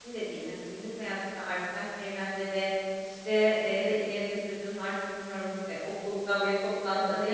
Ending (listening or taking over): listening